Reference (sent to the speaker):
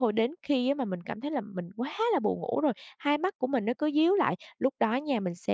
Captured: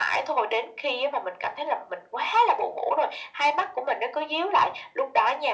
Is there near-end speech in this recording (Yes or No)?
No